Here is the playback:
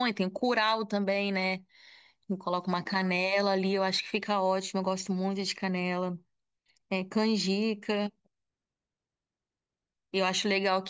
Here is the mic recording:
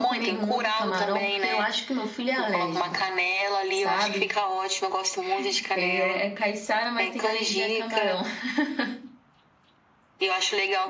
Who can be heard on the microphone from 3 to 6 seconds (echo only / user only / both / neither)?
both